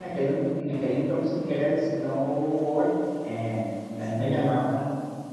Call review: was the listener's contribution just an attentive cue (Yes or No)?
Yes